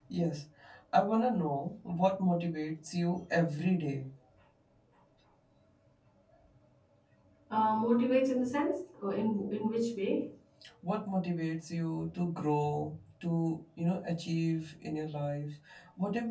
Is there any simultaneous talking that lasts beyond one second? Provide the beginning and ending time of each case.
none

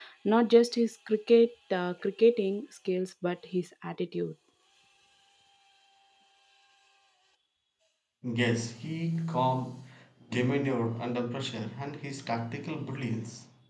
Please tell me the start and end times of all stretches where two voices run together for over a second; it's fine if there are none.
none

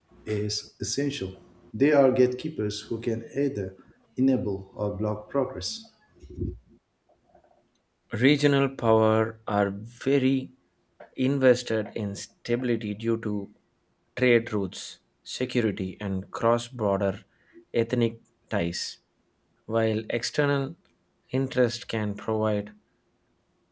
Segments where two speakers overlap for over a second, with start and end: none

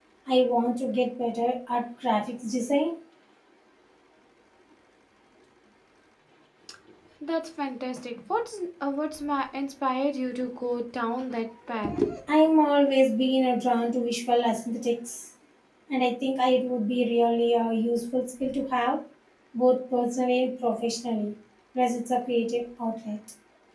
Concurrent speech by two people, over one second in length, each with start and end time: none

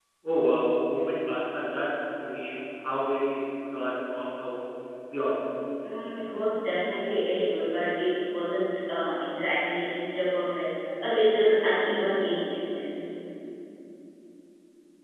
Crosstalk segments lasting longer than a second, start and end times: none

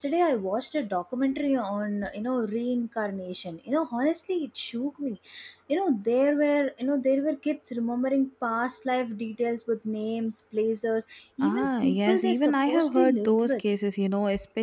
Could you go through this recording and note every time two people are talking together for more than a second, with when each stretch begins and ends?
11.4-13.6

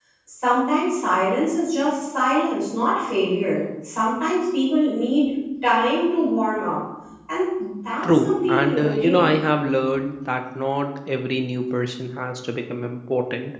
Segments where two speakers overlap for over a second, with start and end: 8.0-9.3

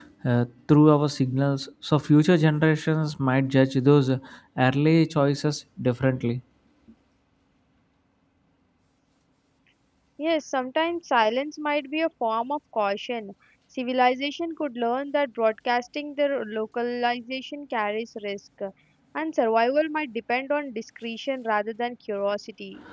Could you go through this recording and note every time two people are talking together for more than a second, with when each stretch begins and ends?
none

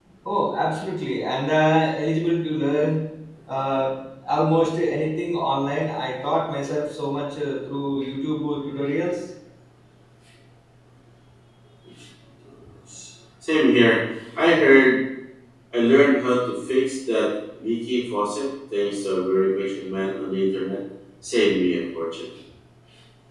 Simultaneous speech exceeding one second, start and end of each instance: none

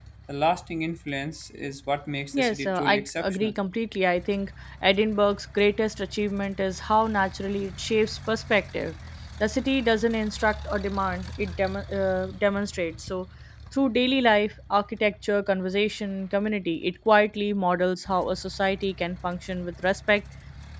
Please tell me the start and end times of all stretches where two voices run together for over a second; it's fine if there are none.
2.3-3.5

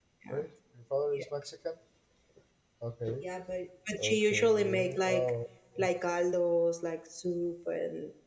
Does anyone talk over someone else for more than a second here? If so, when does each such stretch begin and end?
4.0-5.3

